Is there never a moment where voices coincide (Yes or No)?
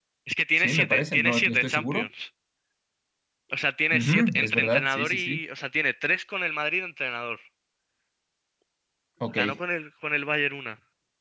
No